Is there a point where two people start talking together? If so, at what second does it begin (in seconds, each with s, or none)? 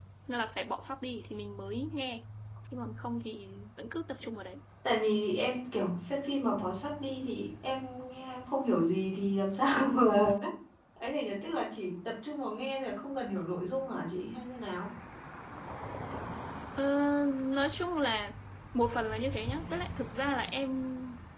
none